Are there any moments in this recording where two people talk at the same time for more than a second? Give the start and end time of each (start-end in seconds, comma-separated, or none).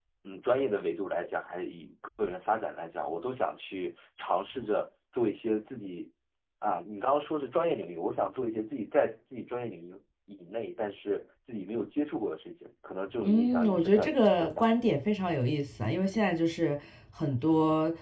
13.2-14.7